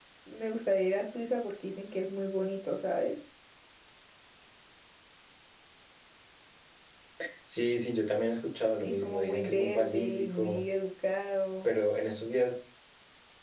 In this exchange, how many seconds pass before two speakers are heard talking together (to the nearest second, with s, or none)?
9 s